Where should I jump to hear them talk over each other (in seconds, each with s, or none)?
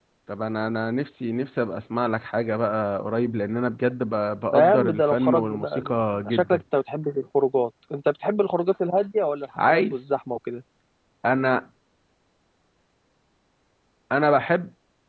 4.5 s